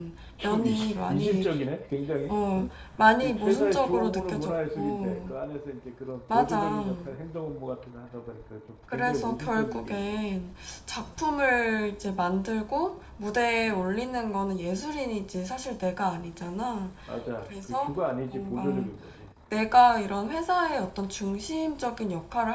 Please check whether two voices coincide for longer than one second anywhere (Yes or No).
Yes